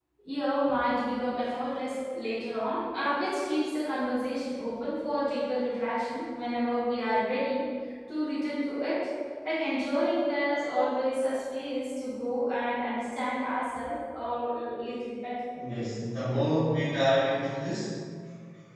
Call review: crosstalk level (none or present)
none